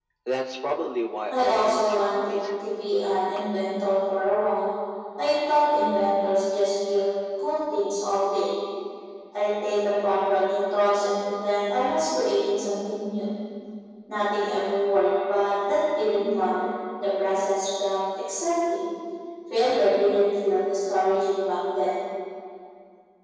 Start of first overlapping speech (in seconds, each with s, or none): 1.3 s